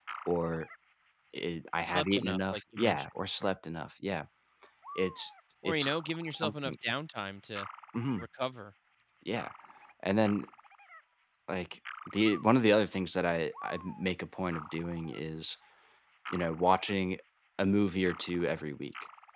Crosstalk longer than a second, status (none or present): present